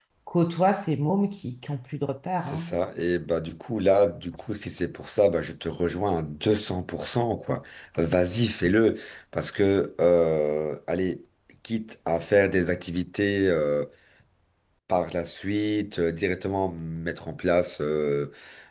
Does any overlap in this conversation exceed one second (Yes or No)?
No